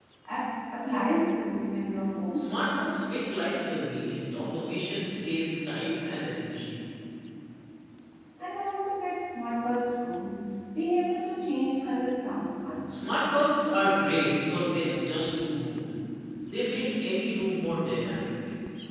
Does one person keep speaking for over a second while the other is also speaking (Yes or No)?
No